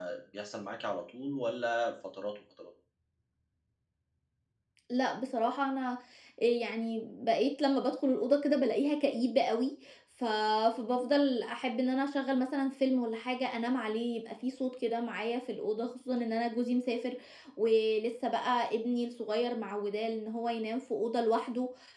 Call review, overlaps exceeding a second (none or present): none